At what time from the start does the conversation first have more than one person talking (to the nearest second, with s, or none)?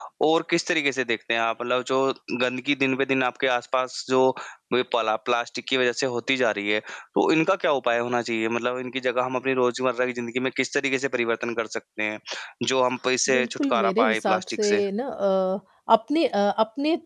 13 s